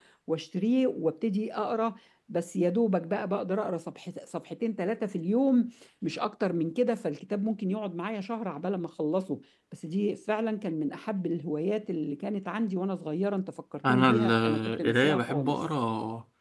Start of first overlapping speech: 14 s

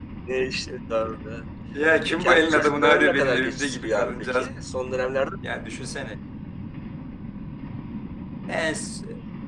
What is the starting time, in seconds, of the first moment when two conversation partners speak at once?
2 s

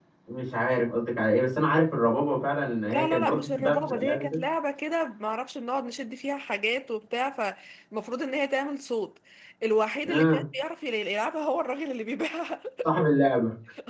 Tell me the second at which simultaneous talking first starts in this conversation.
3 s

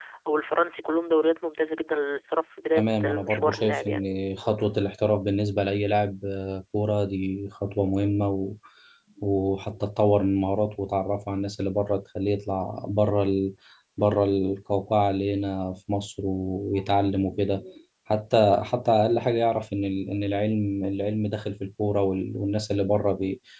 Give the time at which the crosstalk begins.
3 s

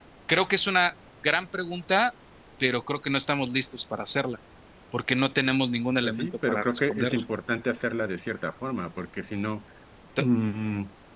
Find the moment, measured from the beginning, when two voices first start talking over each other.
6 s

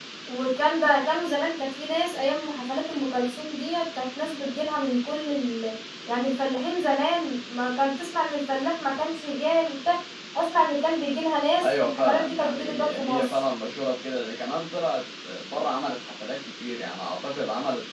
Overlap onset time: 12 s

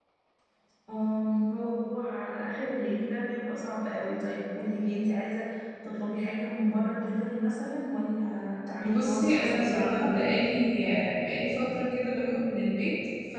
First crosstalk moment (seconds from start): 9 s

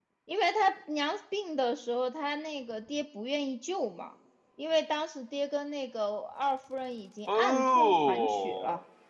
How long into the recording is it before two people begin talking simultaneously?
7 s

